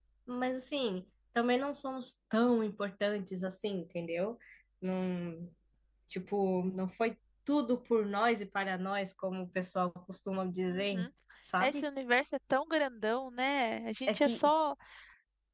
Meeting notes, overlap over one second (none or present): none